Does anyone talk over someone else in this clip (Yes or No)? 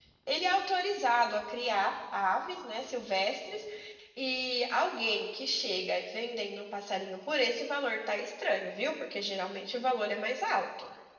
No